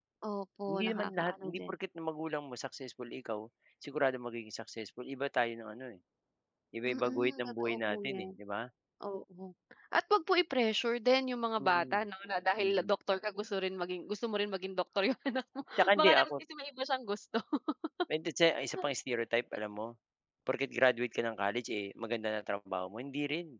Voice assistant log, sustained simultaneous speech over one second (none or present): present